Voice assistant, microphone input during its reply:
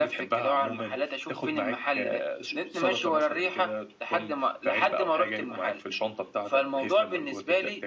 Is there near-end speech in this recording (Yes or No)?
No